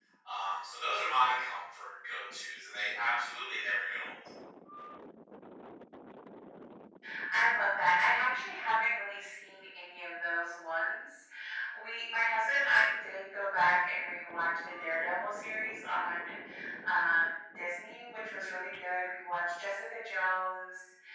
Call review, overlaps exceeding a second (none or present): none